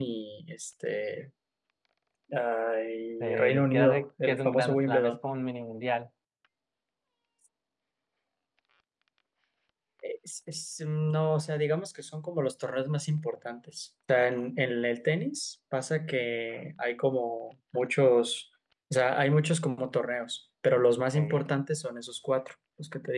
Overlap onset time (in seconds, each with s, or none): 3.2 s